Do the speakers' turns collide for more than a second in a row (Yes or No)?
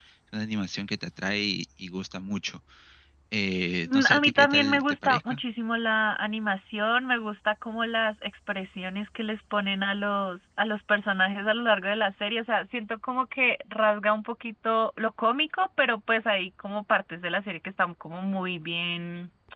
Yes